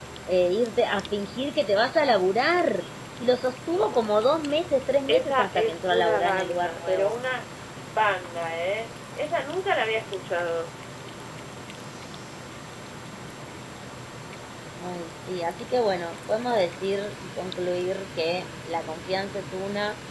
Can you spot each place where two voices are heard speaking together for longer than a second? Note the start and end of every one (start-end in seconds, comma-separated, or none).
5.1-7.2